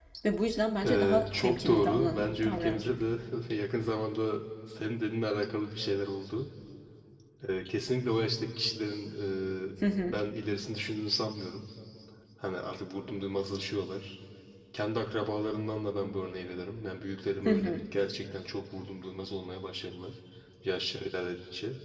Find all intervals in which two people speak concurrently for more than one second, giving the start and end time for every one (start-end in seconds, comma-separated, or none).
0.8-2.9